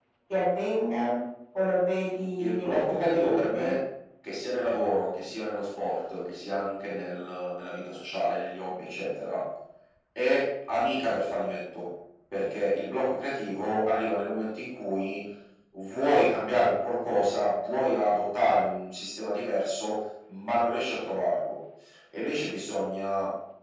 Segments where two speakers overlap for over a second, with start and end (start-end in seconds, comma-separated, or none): 2.4-3.7